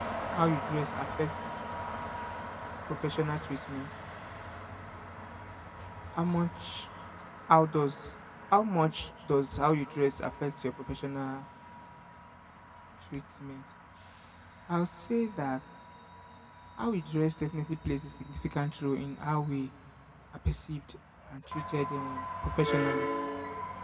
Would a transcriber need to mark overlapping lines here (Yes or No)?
No